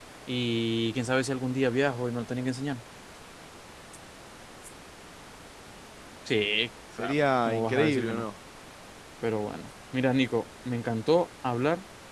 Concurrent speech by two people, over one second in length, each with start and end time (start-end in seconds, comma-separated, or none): 7.0-8.2